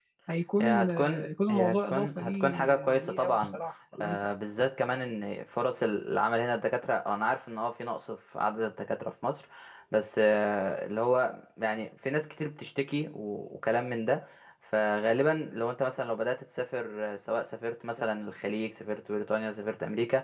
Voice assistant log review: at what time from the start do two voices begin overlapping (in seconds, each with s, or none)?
0.6 s